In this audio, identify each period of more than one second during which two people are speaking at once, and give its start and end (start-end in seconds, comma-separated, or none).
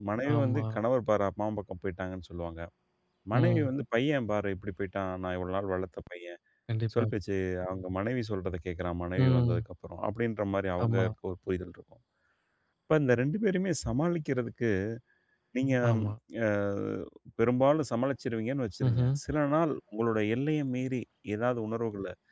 none